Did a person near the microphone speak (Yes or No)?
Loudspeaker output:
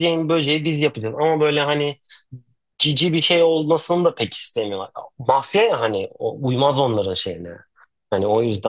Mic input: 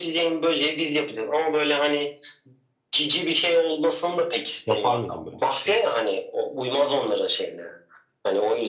Yes